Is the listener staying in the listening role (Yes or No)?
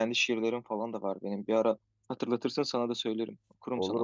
No